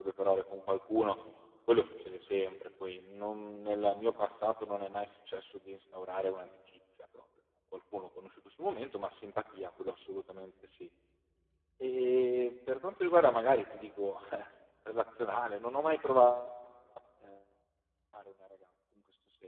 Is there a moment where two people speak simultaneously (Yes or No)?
No